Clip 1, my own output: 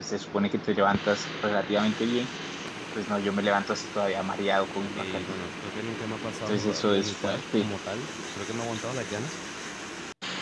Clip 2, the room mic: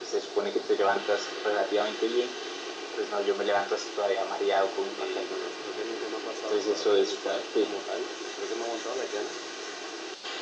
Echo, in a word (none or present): present